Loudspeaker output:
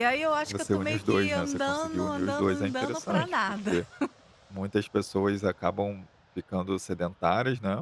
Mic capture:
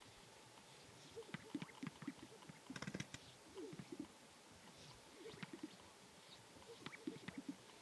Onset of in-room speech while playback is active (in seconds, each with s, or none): none